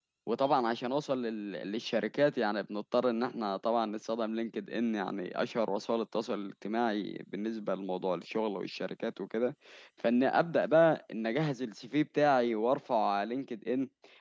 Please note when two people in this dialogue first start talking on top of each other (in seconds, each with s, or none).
none